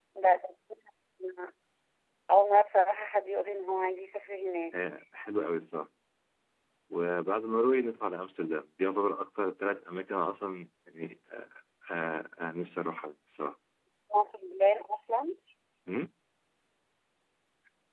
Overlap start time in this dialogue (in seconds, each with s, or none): none